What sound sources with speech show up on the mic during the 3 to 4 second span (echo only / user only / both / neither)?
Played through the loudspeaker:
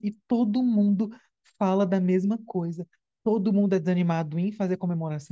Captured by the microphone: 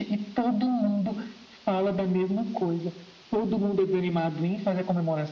echo only